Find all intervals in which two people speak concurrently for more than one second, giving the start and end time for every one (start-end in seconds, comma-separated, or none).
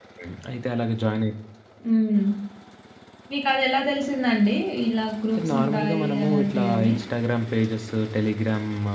5.5-6.9